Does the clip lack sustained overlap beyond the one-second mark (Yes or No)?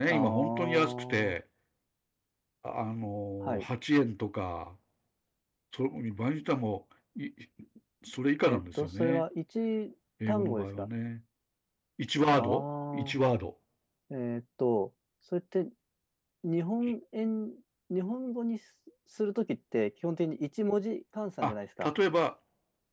No